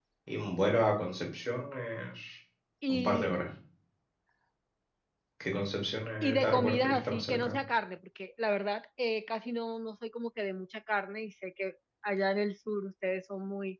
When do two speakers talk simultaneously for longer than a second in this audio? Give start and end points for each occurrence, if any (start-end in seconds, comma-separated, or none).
6.2-7.6